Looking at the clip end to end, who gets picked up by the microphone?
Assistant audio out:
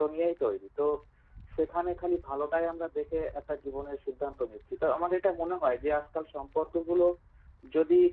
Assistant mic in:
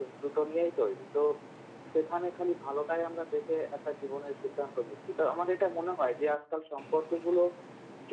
echo only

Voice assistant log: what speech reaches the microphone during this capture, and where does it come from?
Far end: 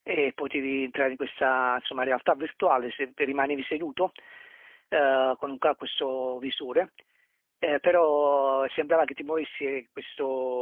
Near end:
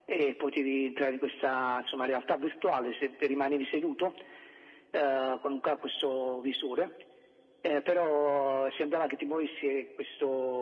echo only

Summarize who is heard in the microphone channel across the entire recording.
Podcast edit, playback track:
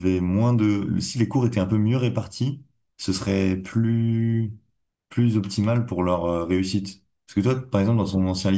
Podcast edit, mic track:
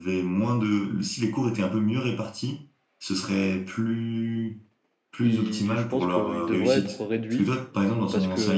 both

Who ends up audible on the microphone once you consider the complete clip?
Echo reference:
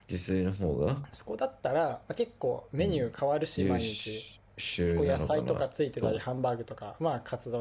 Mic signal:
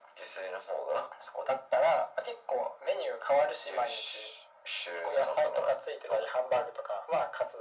echo only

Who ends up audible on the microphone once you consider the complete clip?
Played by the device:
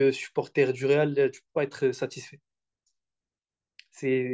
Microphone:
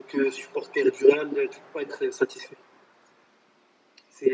echo only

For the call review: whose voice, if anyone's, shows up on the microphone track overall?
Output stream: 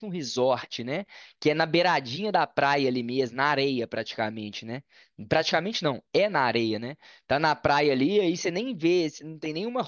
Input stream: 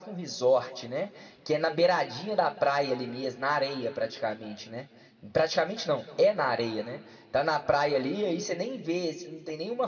echo only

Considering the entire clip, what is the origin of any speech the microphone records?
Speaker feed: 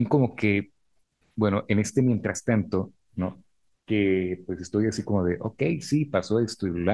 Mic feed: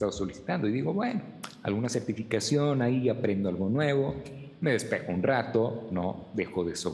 user only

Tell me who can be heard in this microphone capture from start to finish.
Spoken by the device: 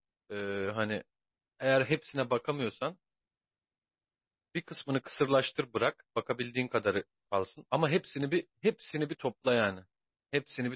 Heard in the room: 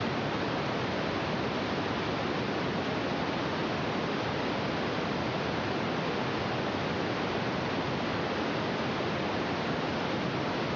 neither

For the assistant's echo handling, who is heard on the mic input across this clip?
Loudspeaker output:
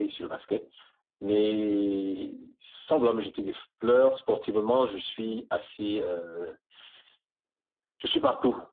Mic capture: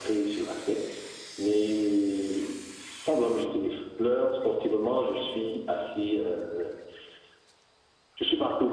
echo only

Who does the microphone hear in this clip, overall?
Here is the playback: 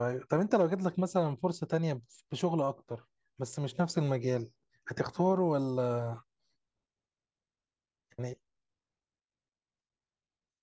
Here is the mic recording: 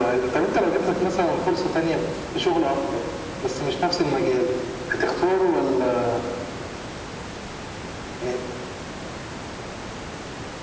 echo only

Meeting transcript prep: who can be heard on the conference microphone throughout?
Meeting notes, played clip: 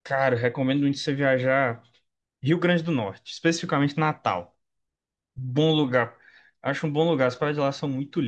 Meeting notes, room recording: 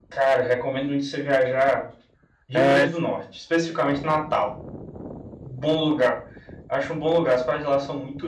both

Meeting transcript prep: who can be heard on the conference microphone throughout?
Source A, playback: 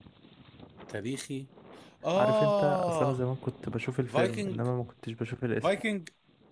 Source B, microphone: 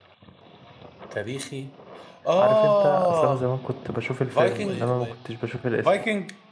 both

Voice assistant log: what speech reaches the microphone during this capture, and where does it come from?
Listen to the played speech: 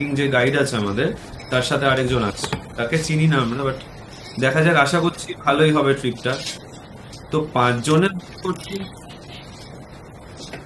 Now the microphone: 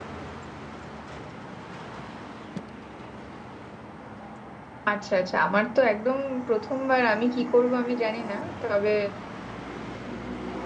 user only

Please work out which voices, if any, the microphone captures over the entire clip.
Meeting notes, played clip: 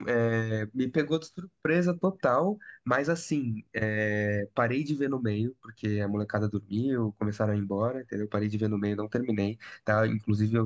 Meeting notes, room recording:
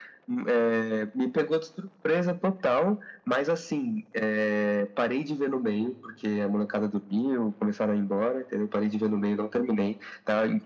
echo only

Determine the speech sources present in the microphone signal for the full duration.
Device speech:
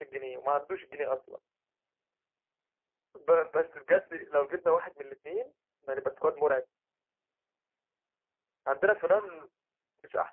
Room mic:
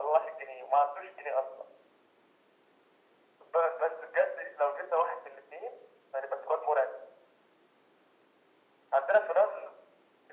echo only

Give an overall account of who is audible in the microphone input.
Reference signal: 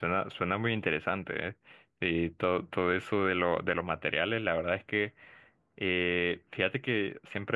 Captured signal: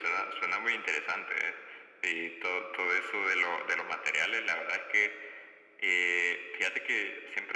echo only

